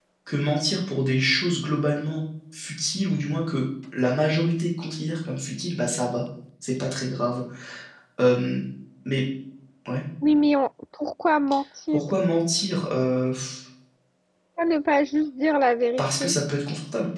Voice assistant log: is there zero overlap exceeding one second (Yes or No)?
Yes